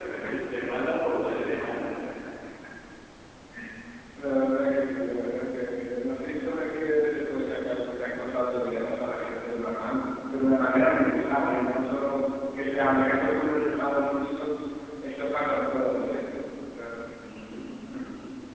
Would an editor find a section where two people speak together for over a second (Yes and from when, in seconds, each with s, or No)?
No